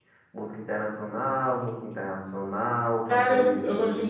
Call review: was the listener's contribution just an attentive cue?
No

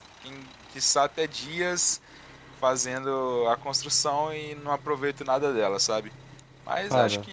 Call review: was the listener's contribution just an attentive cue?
Yes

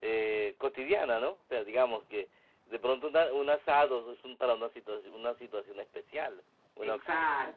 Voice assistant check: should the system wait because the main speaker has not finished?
Yes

